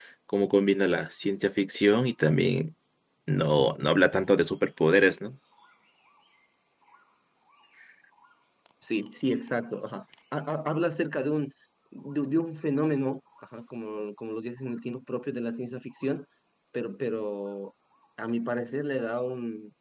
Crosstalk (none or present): none